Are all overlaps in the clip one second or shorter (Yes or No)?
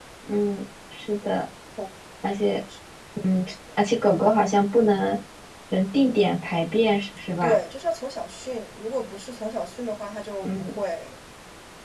Yes